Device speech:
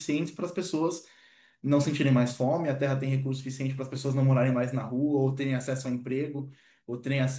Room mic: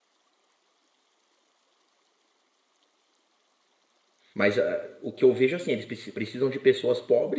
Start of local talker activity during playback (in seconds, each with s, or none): 4.3 s